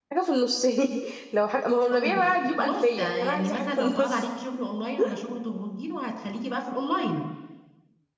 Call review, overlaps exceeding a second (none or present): present